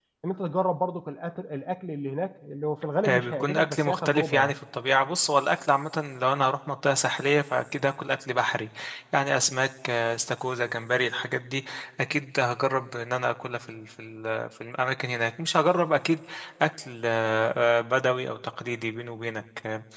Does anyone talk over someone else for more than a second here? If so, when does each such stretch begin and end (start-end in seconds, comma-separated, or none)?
3.1-4.5